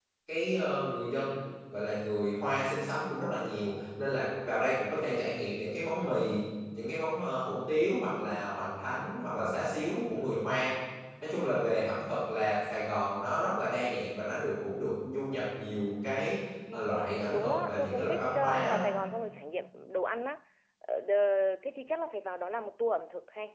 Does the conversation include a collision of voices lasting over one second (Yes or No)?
Yes